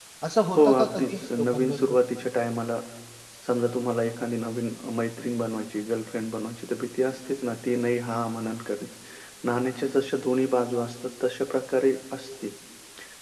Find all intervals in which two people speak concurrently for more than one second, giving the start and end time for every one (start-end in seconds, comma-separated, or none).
0.6-2.0